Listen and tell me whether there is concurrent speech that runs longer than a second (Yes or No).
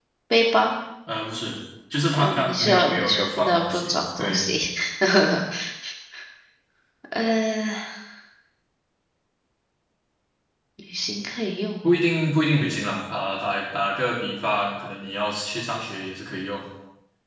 Yes